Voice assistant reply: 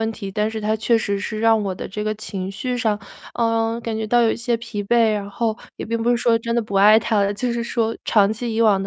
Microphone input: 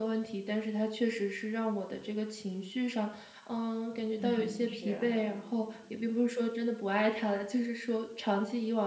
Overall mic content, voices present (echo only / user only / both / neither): both